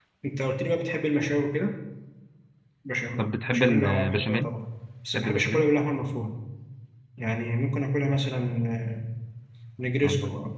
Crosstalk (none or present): present